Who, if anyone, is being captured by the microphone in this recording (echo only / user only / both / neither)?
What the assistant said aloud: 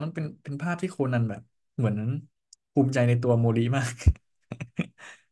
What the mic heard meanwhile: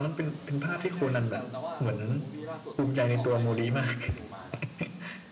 both